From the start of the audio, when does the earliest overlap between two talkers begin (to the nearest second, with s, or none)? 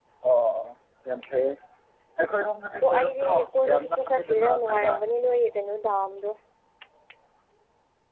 3 s